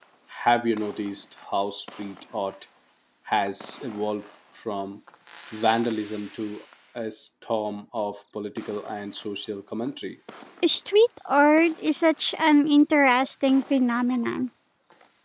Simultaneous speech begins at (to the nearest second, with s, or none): none